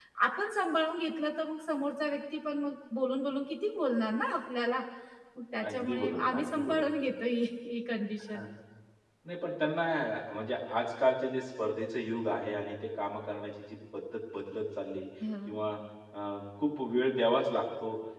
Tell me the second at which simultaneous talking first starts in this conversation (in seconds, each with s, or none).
5.7 s